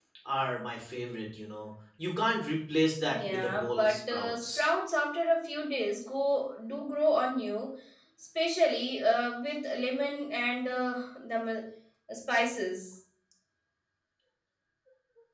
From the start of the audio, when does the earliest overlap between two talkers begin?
3 s

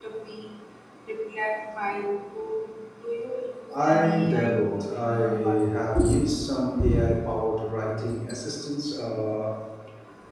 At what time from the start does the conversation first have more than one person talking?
4 s

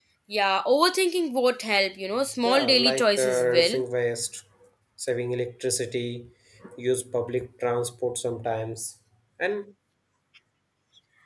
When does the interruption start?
2 s

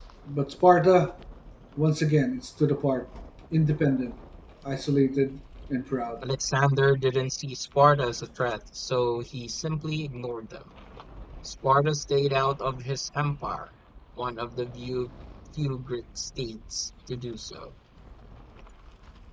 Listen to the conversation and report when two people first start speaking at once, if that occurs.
none

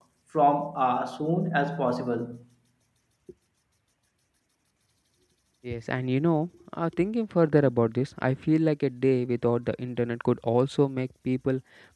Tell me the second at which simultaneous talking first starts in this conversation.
none

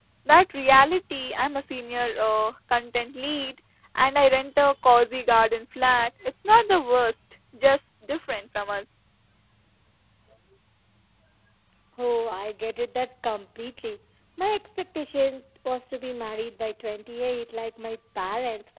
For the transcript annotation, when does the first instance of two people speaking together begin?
none

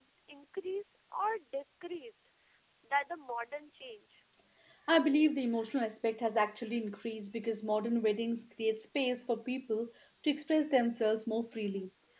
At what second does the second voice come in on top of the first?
none

